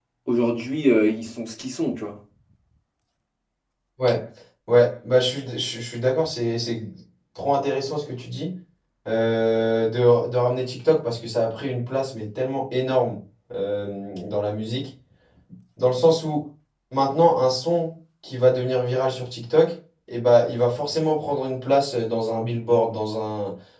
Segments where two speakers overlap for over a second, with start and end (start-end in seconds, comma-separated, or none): none